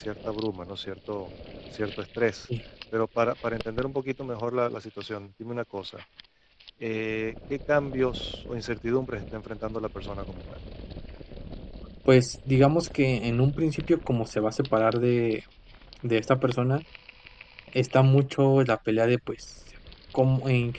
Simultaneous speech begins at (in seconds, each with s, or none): none